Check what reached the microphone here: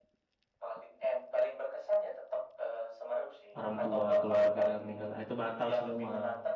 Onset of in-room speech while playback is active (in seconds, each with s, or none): 3.5 s